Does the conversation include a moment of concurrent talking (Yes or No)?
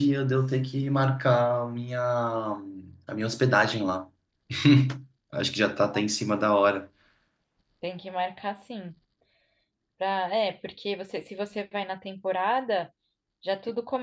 No